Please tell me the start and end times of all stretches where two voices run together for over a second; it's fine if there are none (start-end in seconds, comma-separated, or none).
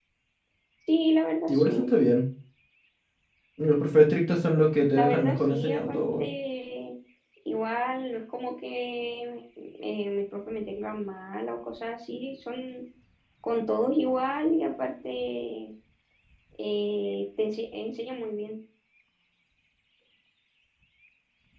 5.0-6.3